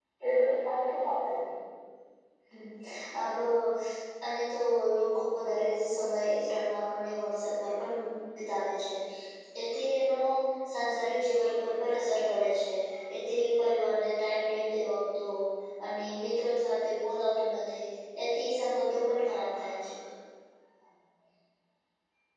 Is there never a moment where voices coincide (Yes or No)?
Yes